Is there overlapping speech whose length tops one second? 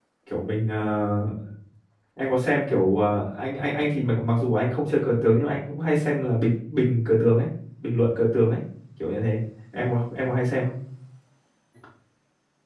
No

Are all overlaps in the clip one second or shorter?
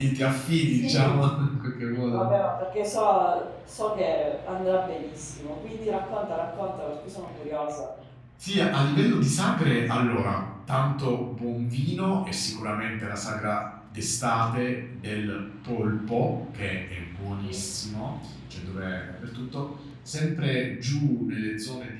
Yes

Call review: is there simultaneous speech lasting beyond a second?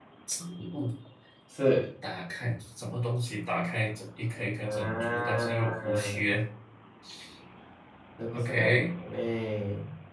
Yes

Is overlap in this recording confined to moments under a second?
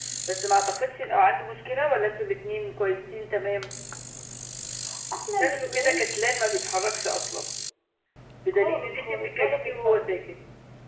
No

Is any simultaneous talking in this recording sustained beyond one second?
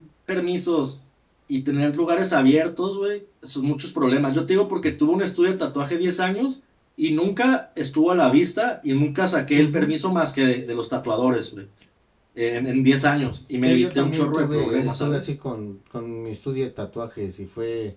Yes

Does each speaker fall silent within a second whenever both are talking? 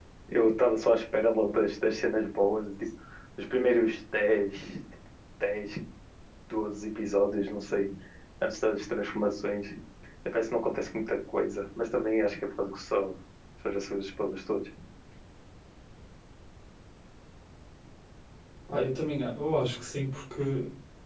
Yes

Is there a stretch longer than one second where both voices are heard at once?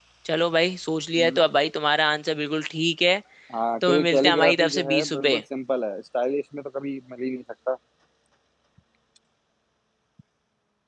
Yes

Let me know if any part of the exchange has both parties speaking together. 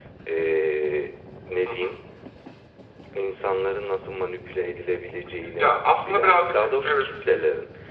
Yes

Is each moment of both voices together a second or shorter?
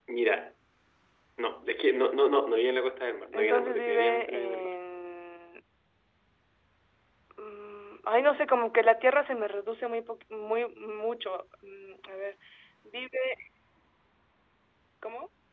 No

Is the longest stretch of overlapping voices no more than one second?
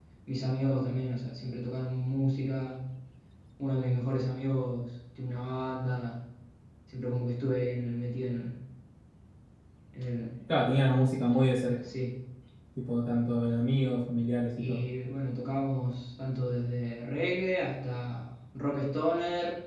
Yes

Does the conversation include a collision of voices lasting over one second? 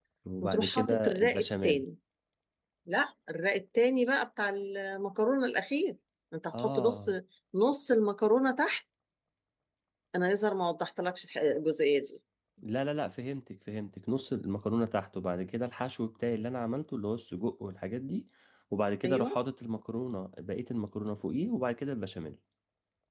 Yes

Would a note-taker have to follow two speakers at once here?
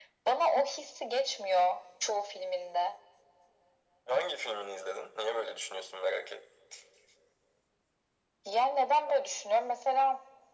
No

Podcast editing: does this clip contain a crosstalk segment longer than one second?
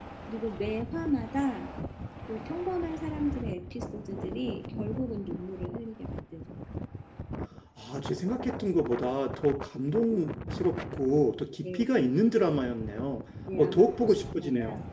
Yes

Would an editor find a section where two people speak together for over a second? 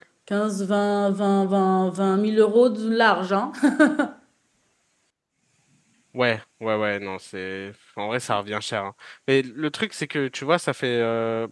No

